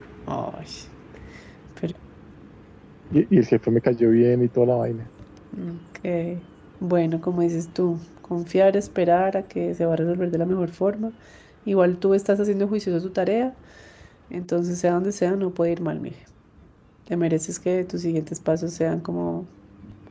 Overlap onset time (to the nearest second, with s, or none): none